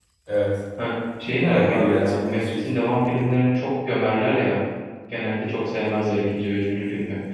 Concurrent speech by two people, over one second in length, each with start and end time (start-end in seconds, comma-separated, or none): 1.4-2.6